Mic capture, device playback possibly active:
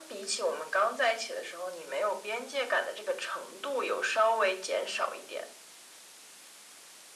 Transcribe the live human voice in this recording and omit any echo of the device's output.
none

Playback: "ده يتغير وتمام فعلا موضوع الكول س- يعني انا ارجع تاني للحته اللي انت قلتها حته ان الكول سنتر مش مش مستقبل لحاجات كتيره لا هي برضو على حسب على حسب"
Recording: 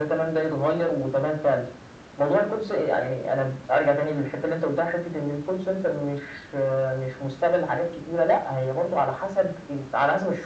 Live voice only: none

